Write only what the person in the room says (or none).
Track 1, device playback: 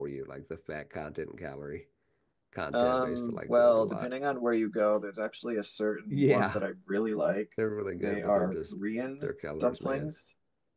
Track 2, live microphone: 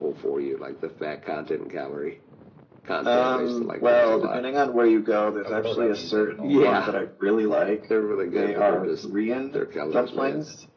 uh, growing up, I used to have it all the time.